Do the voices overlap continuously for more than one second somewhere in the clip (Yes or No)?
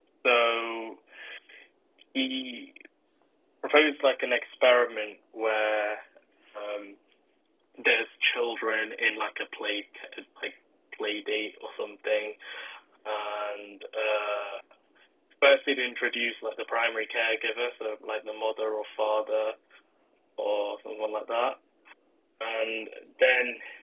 No